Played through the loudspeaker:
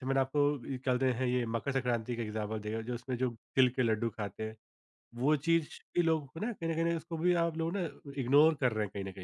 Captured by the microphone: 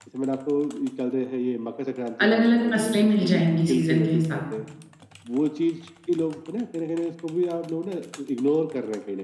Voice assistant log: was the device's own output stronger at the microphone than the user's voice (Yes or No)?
No